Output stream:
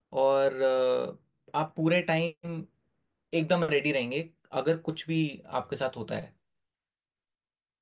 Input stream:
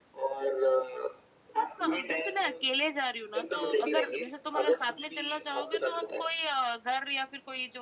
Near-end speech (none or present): present